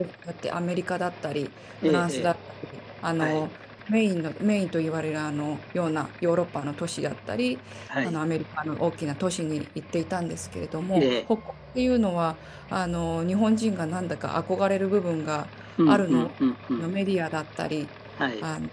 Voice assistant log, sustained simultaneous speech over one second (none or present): none